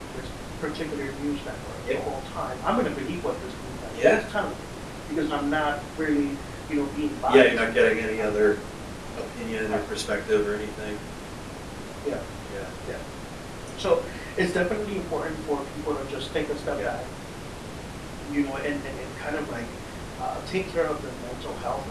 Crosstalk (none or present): present